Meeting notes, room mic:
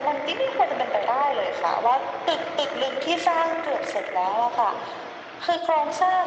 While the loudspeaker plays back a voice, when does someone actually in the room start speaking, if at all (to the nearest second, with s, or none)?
none